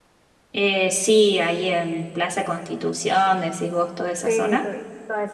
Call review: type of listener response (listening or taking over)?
taking over